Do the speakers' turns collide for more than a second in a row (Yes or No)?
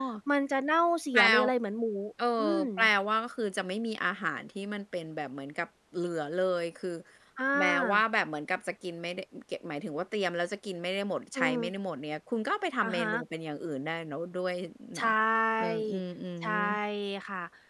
No